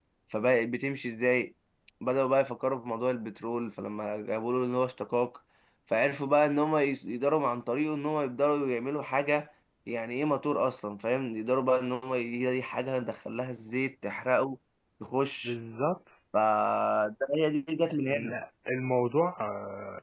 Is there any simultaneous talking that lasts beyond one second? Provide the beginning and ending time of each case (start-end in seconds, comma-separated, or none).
none